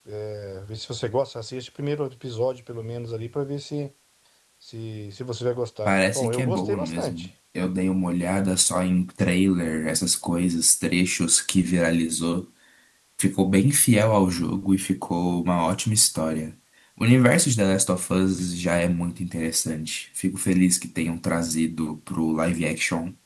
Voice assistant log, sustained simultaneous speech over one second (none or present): present